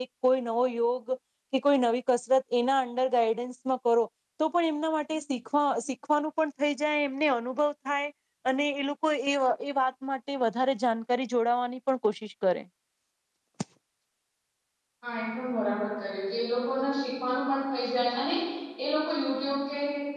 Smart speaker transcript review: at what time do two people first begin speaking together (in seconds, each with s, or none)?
none